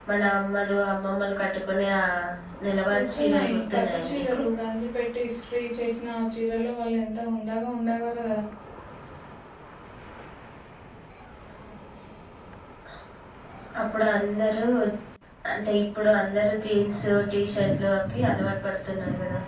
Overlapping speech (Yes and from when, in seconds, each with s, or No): Yes, from 2.9 s